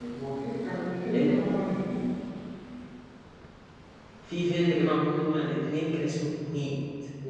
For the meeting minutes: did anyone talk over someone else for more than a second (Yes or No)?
No